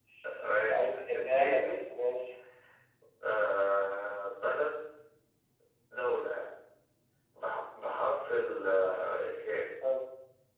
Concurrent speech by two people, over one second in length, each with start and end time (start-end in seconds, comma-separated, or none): 0.7-1.9